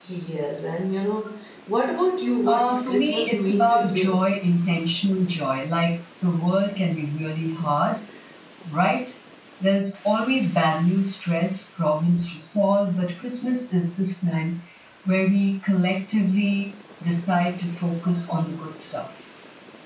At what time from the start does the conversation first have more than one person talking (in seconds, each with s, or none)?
2.5 s